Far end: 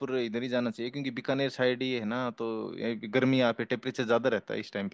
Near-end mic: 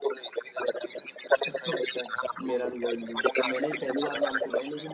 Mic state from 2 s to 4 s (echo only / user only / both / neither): both